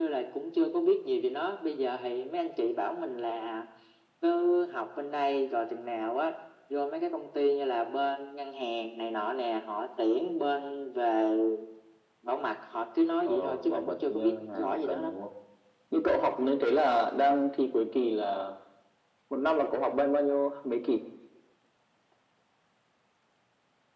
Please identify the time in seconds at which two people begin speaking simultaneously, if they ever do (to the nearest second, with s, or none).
13 s